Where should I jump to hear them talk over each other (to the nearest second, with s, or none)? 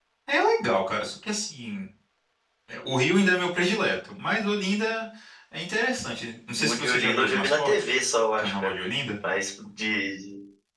7 s